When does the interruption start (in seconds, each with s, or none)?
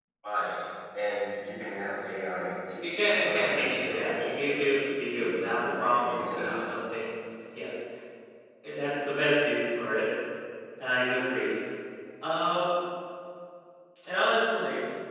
2.8 s